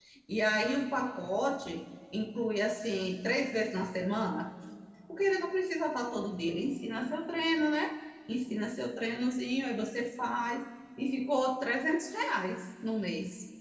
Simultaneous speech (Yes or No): No